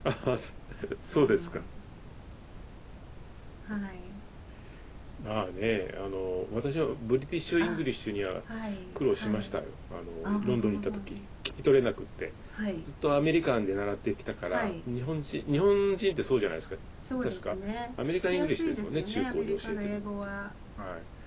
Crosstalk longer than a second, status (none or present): present